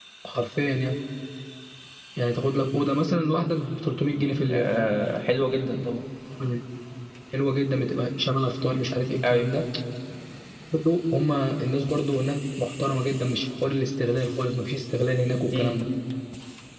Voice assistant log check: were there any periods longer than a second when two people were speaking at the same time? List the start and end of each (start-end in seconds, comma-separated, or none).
none